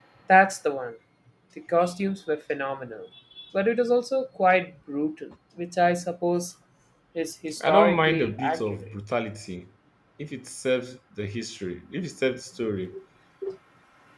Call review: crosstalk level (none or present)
present